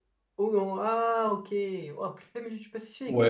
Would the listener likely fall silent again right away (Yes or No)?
No